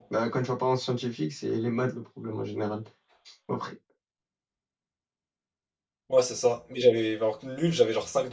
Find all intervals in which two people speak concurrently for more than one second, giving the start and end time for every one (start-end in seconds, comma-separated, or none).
none